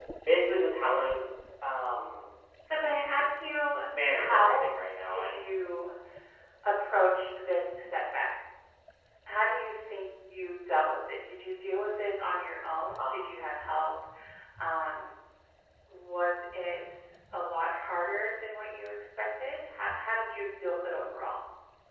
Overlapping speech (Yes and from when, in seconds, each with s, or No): Yes, from 3.9 s